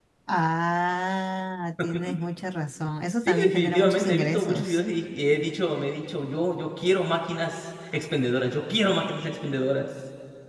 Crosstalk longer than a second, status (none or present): present